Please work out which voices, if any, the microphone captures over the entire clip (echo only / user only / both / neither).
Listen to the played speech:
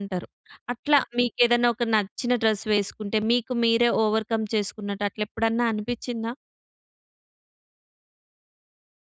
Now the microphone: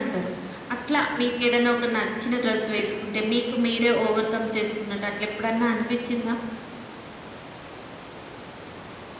echo only